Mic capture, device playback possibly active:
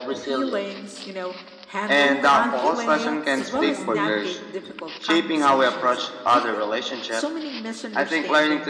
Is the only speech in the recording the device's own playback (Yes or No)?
No